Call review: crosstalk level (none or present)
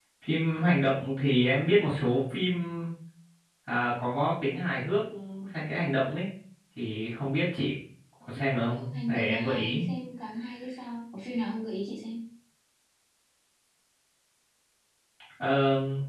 present